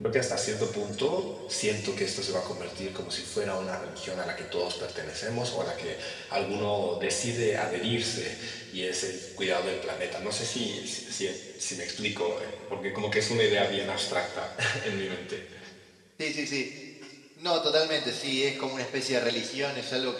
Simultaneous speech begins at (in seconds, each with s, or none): none